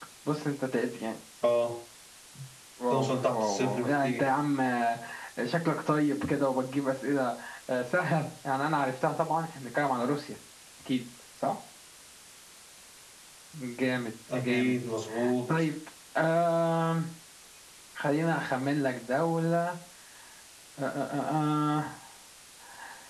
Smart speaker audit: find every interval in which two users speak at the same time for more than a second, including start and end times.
2.9-4.2

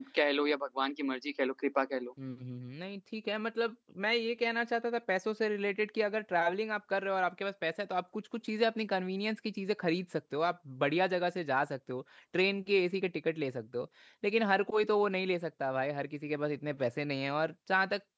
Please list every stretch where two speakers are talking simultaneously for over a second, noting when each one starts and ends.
none

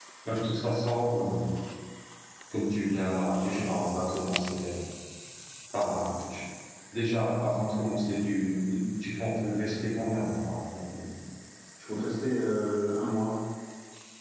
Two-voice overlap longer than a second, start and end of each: none

